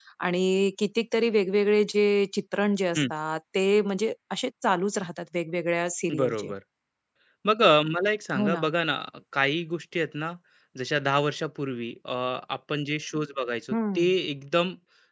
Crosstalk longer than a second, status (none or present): none